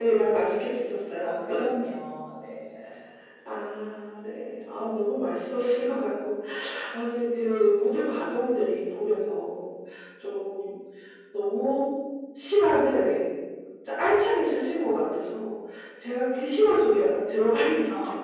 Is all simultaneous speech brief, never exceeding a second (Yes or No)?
Yes